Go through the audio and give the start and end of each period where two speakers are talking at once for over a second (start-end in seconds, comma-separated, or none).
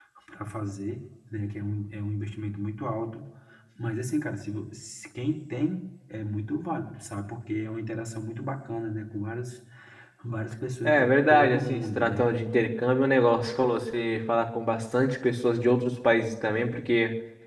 10.8-12.3